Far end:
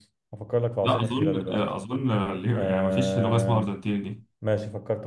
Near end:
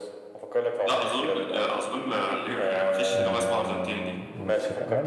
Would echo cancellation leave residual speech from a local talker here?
Yes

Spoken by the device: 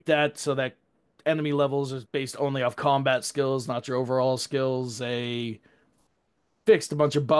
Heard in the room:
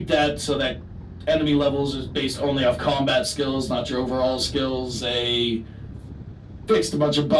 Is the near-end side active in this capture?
No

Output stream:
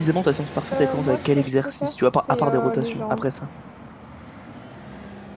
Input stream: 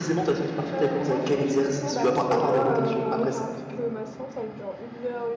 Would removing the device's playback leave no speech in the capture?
No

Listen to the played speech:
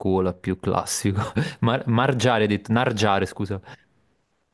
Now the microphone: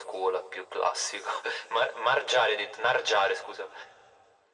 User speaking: No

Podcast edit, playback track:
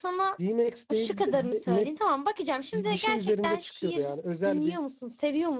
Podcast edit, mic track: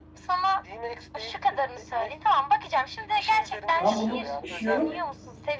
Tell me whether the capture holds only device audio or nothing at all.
No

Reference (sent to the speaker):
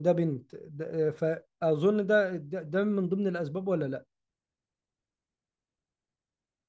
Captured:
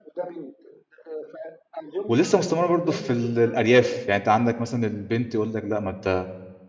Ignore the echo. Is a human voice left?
Yes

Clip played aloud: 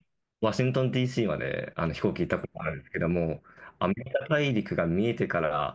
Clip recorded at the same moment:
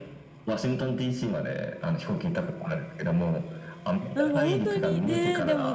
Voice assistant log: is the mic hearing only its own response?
No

